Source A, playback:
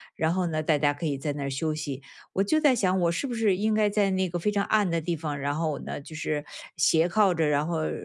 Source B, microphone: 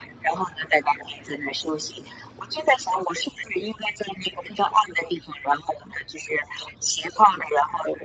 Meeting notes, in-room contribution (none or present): none